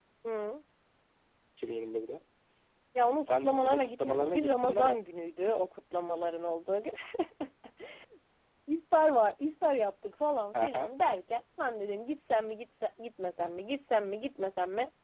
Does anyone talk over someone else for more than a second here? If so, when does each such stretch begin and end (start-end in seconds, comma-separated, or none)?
3.2-5.0